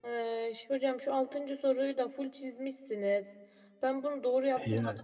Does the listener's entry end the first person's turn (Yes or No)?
No